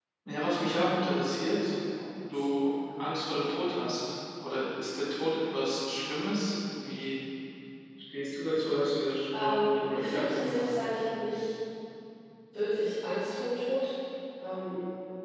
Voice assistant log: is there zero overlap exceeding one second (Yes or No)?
No